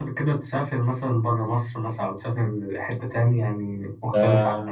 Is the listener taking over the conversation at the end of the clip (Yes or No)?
Yes